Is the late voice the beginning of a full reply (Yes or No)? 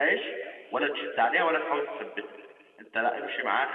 No